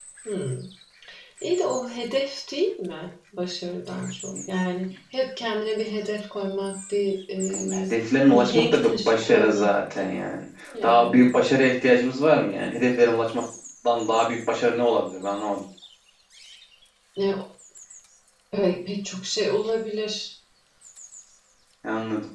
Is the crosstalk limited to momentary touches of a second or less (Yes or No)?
No